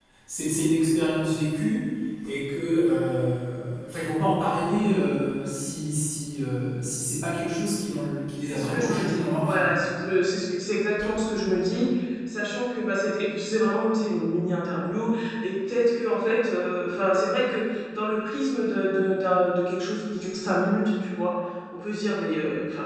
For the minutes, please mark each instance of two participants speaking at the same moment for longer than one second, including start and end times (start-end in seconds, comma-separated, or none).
8.4-9.7